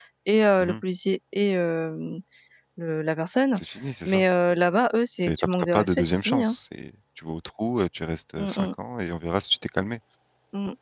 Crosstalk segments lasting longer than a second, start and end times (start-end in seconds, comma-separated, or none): 5.2-6.5